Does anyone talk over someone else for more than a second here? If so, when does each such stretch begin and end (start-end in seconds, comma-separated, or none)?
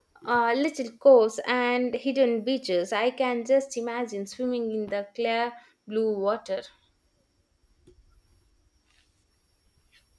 none